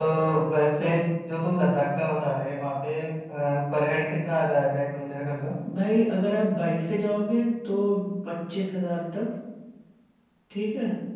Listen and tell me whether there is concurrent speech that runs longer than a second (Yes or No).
No